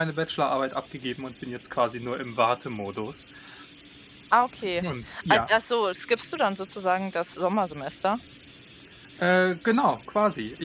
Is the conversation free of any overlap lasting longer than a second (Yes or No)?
Yes